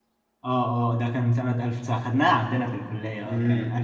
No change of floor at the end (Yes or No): No